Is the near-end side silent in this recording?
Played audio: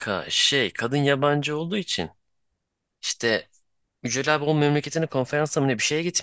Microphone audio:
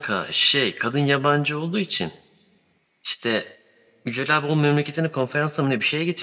Yes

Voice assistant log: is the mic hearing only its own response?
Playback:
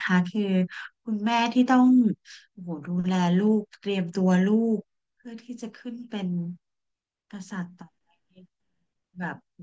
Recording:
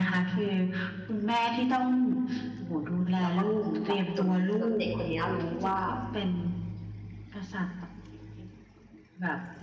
No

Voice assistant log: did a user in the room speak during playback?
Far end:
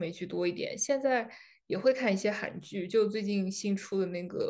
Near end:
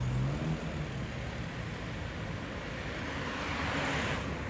No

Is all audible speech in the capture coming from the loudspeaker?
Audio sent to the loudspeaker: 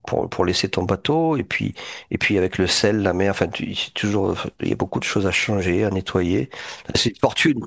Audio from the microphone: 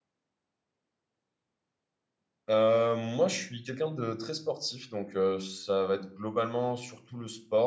No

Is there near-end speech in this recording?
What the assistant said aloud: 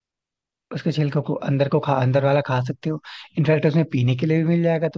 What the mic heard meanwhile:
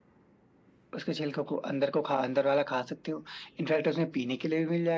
No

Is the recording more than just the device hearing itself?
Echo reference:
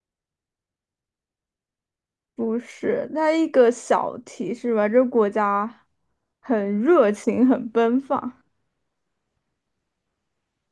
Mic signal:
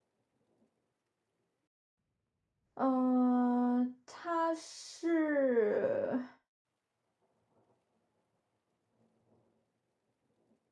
Yes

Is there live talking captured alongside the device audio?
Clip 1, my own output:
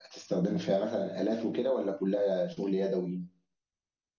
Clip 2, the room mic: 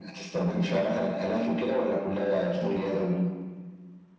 No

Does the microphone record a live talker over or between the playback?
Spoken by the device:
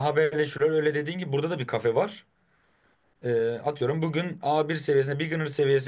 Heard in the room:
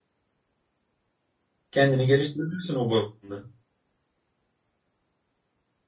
Yes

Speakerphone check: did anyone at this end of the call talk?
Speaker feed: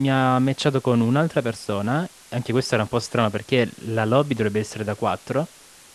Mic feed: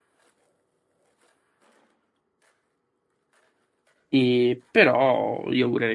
Yes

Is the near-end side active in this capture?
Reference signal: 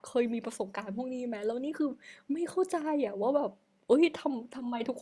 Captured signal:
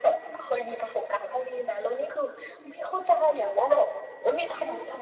No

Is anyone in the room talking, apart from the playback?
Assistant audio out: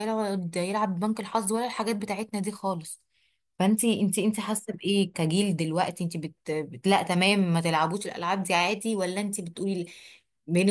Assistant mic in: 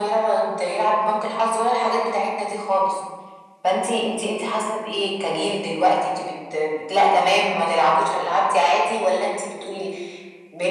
No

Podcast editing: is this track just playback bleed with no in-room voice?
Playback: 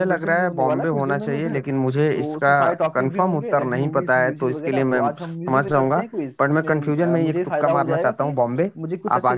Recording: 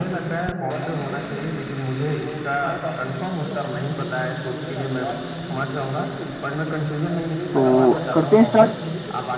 No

